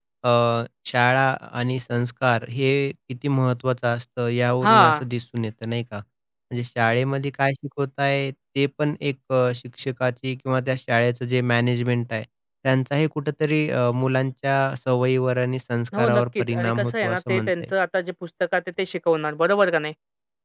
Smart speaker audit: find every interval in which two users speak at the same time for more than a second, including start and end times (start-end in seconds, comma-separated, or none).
16.0-17.7